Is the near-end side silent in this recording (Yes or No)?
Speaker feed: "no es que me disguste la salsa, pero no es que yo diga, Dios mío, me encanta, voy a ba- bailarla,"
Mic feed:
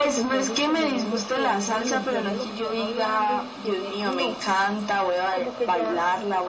No